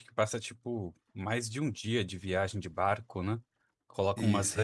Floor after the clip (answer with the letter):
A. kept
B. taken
A